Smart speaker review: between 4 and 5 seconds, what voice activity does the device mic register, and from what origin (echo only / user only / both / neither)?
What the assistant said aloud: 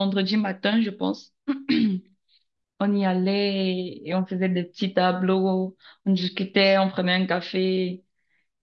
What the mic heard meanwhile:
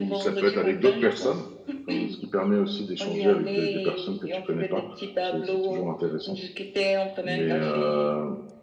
both